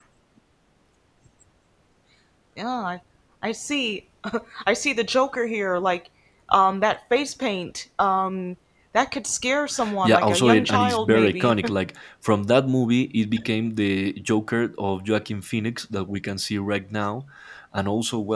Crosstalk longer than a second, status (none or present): present